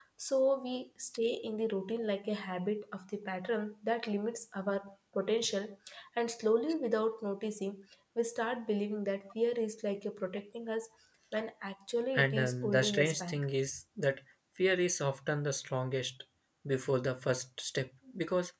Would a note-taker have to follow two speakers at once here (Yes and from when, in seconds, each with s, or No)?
Yes, from 12.2 s